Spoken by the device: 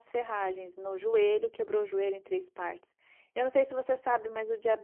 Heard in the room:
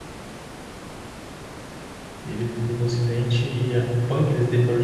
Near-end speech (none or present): present